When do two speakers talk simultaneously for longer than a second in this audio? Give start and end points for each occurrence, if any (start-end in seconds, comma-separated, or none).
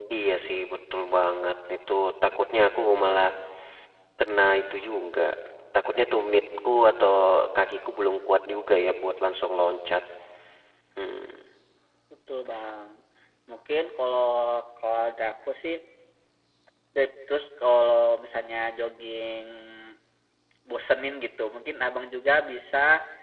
none